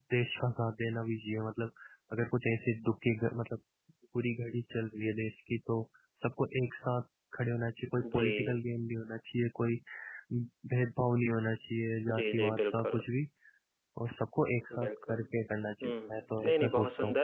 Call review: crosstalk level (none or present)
present